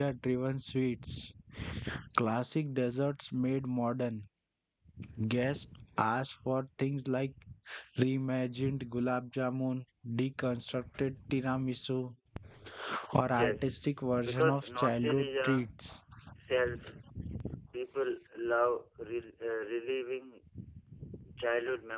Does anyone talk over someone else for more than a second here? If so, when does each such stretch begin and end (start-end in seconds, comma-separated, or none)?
14.2-15.7